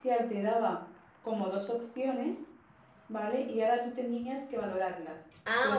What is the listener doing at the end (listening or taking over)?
listening